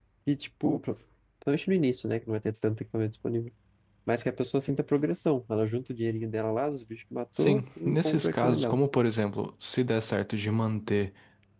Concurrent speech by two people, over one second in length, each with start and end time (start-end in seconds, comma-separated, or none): 7.4-8.8